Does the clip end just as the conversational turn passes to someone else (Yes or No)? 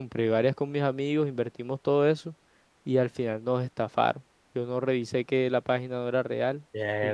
Yes